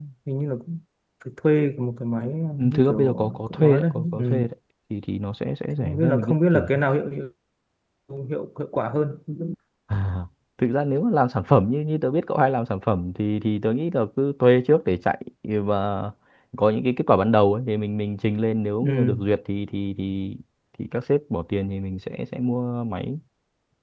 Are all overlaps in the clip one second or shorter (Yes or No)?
No